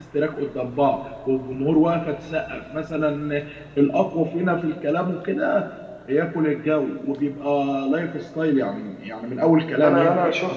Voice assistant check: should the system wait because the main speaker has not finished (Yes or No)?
No